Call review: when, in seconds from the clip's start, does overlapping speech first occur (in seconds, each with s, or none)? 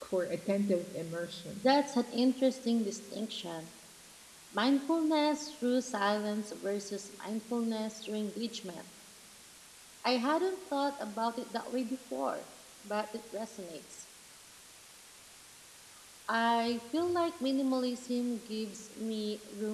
none